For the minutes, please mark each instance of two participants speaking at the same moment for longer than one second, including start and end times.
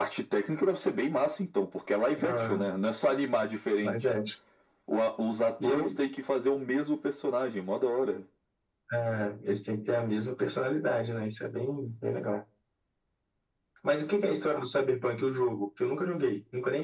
none

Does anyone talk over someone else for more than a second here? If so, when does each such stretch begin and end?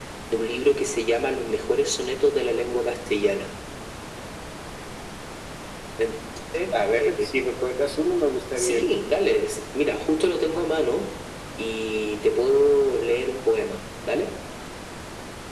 none

